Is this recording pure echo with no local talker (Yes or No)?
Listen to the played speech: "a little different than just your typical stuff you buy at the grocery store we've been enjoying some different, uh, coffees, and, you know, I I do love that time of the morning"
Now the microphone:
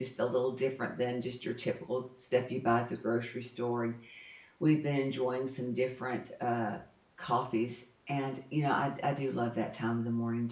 Yes